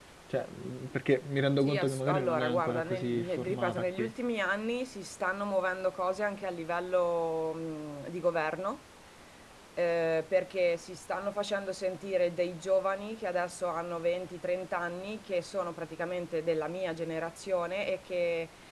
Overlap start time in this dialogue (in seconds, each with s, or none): 1.6 s